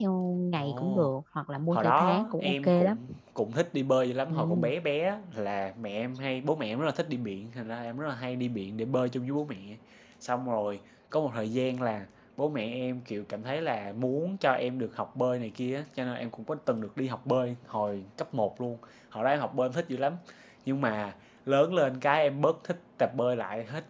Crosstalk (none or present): present